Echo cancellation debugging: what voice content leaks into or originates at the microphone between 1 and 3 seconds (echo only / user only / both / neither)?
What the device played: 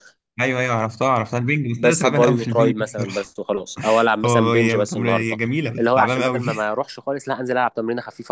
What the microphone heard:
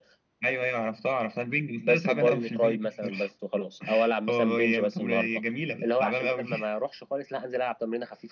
echo only